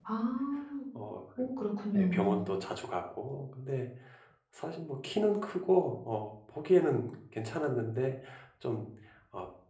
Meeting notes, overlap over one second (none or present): none